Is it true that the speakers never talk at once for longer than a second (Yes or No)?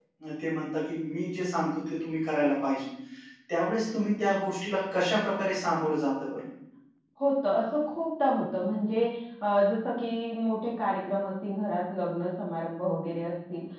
Yes